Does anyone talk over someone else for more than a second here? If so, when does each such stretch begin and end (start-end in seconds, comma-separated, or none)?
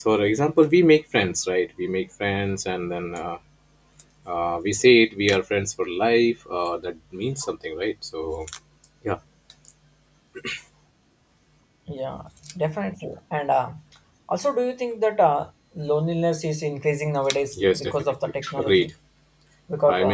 17.5-18.9